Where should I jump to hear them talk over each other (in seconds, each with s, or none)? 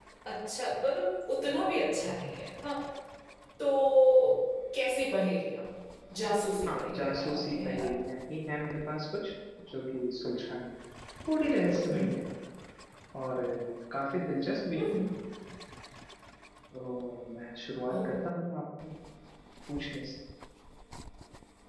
6.7 s